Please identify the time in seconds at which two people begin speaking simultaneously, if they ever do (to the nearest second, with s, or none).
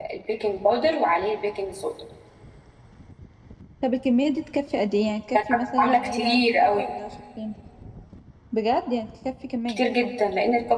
6 s